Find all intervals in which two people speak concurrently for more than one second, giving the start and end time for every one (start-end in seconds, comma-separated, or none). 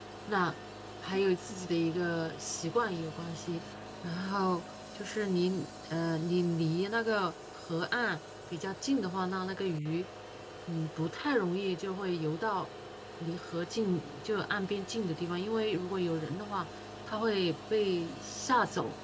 none